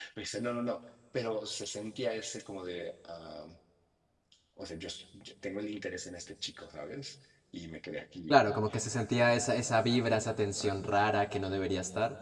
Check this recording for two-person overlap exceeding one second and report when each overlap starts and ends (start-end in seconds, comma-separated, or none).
none